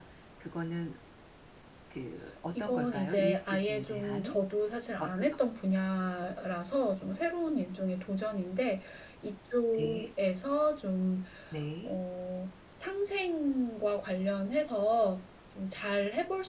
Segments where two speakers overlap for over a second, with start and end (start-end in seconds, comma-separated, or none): 2.6-4.3